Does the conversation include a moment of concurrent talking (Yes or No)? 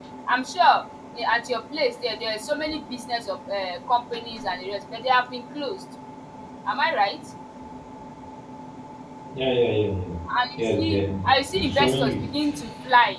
Yes